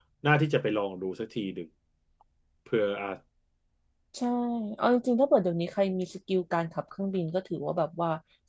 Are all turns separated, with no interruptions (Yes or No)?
Yes